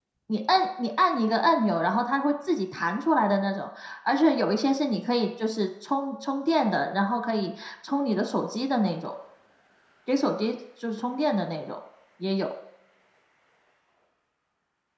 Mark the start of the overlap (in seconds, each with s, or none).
none